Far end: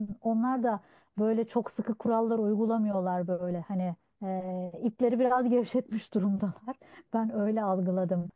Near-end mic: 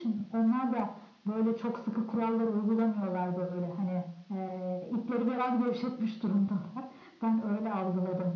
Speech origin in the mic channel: echo only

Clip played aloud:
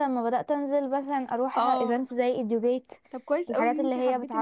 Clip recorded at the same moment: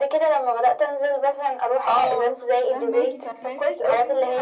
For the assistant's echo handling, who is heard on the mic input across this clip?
both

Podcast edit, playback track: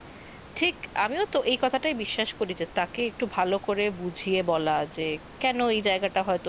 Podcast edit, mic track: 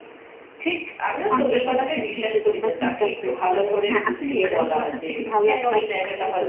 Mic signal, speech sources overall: both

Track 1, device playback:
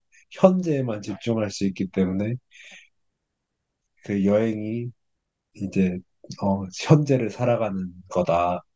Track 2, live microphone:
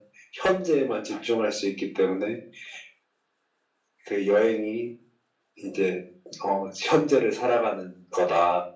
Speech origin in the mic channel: echo only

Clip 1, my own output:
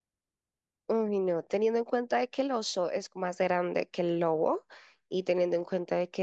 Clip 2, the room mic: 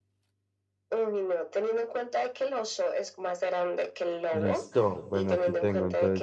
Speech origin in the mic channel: both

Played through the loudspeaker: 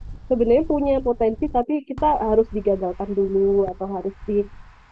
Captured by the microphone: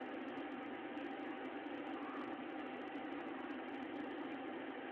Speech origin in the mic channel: neither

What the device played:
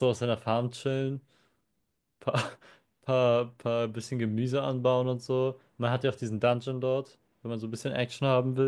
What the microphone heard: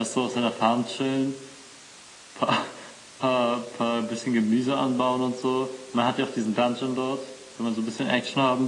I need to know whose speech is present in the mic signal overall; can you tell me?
echo only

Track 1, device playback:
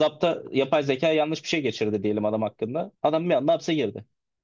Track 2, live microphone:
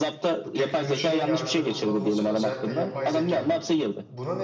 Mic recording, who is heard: both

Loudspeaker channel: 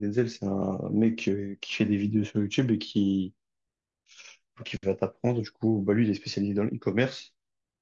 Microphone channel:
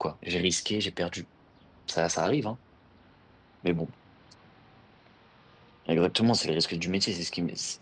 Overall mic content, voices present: user only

